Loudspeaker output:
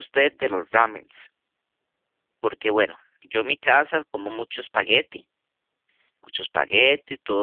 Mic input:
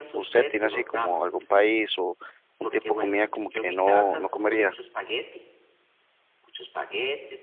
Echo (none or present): present